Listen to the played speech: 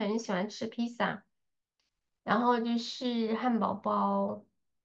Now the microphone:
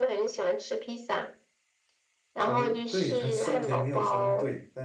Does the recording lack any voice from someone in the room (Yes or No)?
No